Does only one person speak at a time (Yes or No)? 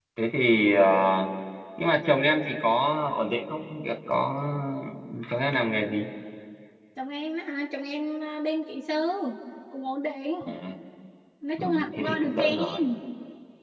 No